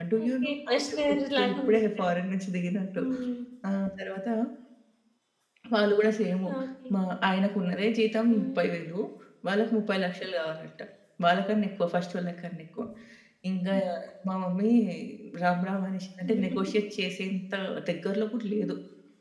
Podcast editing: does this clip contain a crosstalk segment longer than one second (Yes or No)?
Yes